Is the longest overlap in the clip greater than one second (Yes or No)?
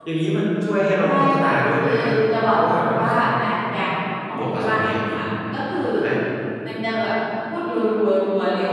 Yes